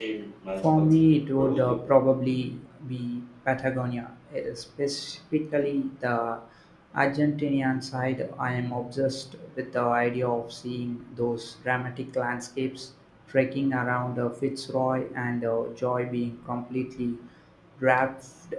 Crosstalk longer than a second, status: present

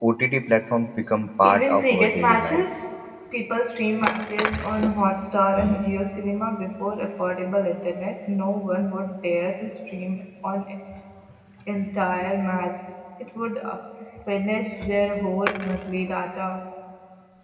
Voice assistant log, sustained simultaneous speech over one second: present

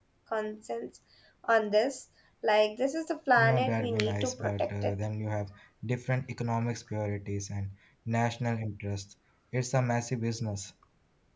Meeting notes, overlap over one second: present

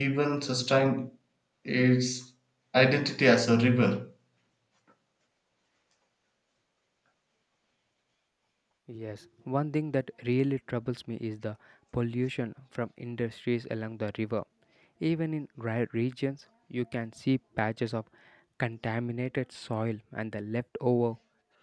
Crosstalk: none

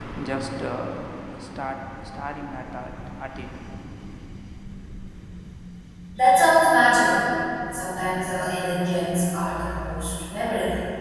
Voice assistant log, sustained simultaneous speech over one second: none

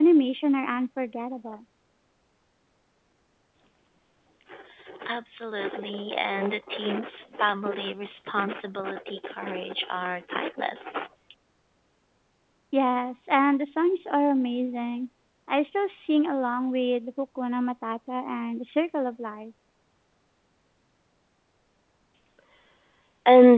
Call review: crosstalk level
none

